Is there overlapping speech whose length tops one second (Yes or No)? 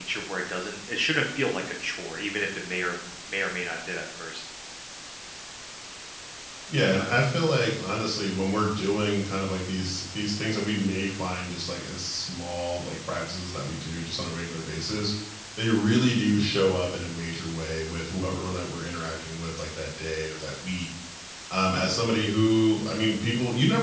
No